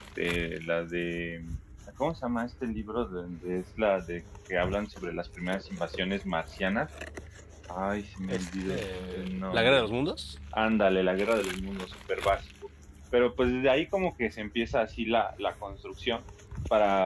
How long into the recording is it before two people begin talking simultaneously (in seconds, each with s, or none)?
8.3 s